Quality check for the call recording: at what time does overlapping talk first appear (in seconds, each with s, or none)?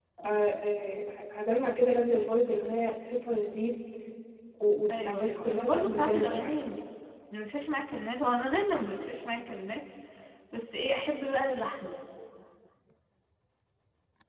4.9 s